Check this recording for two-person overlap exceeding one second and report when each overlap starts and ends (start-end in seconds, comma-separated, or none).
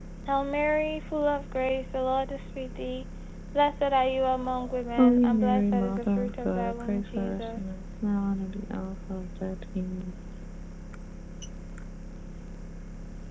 5.0-7.6